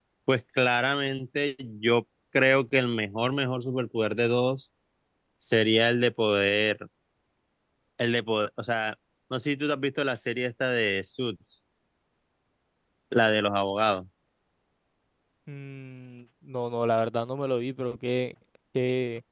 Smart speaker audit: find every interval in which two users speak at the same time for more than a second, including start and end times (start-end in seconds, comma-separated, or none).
none